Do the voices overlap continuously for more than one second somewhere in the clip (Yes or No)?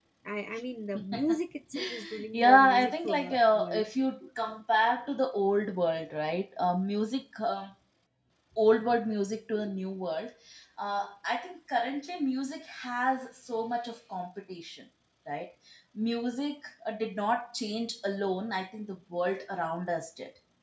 Yes